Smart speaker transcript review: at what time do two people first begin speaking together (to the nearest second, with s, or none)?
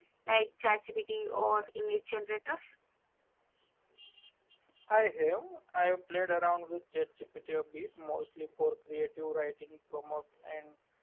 none